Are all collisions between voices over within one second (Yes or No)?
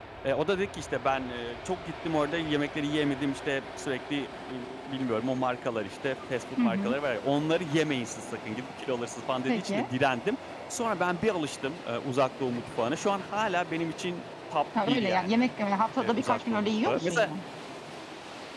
No